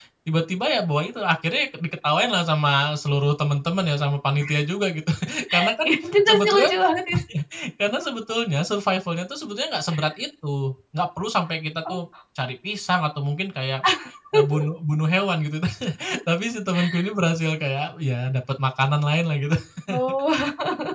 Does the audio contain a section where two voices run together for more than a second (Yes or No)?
No